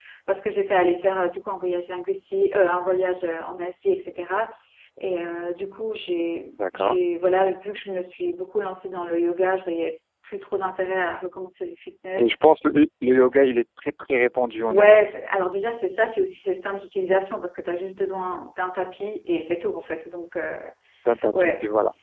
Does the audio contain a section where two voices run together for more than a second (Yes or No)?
No